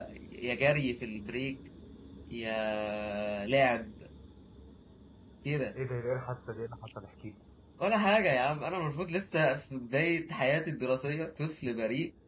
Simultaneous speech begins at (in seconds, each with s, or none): none